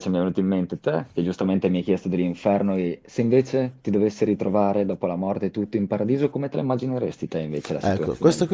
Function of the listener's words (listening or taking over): taking over